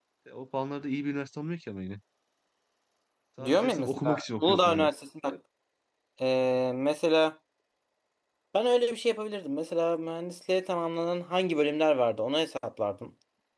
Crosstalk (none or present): present